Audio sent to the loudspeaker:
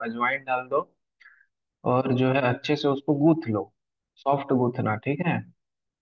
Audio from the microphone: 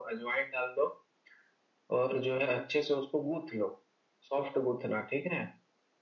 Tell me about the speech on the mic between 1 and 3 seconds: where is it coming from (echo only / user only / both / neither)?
echo only